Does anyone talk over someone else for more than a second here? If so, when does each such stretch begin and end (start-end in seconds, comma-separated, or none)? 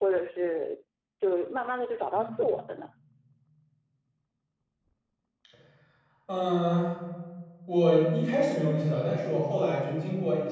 none